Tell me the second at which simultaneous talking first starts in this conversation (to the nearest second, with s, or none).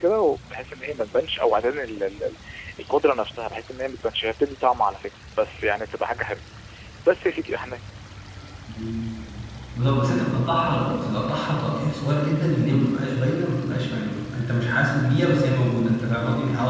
none